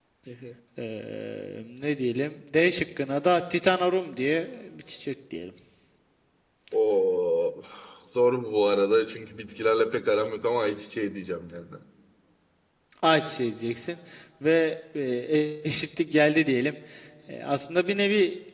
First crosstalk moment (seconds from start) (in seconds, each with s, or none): none